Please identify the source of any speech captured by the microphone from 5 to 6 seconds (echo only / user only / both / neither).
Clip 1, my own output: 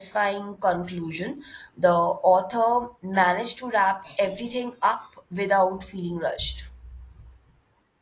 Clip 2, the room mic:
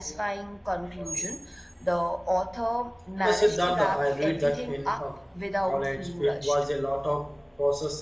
both